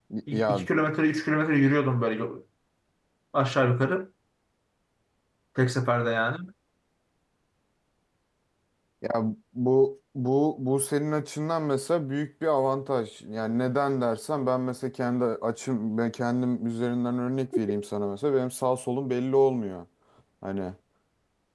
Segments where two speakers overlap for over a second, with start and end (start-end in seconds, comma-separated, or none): none